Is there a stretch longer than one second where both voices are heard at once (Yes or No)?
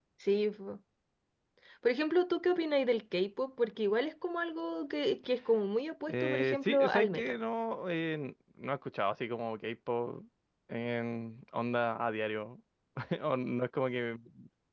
Yes